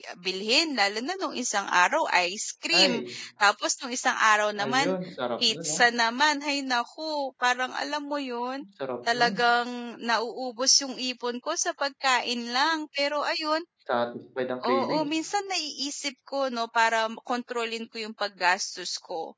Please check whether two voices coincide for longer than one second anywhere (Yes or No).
No